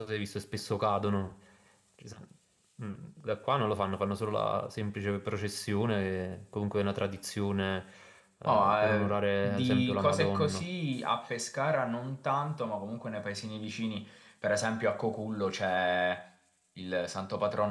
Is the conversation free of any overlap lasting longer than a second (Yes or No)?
No